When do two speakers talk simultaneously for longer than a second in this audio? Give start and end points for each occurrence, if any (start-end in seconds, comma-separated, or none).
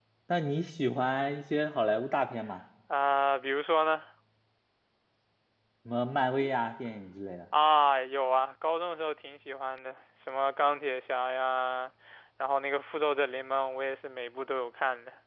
none